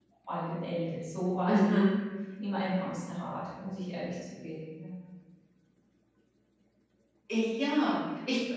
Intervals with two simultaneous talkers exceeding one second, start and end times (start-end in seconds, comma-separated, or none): none